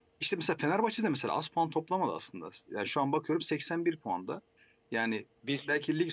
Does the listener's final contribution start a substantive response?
No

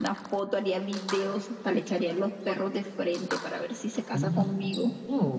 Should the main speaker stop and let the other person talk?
Yes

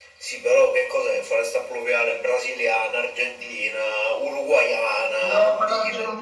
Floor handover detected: Yes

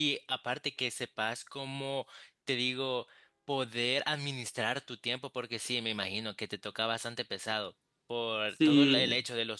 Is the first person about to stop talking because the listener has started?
No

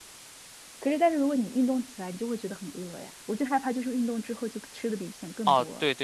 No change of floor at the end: No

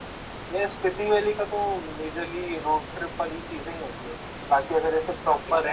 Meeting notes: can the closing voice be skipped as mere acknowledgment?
Yes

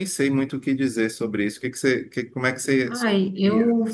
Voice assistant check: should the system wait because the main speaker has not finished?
No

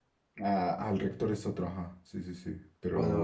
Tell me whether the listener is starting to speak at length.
Yes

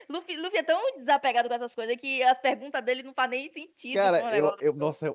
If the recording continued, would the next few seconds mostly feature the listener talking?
Yes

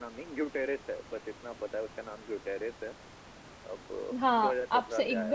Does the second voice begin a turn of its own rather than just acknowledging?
Yes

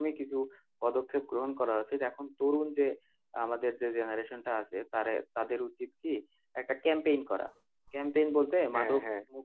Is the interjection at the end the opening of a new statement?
No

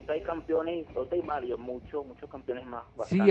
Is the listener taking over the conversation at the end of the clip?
Yes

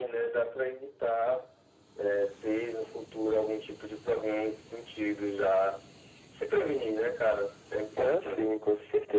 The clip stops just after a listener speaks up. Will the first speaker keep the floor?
No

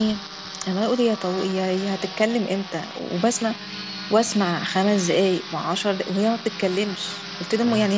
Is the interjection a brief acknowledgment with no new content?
Yes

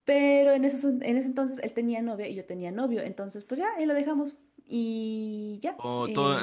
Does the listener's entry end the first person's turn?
Yes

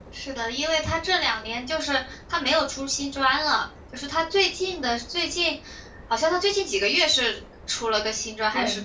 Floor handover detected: Yes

